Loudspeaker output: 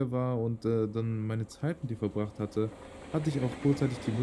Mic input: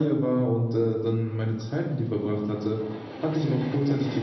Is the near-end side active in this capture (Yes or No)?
No